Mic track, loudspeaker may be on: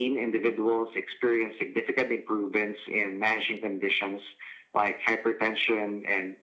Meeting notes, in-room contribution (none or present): none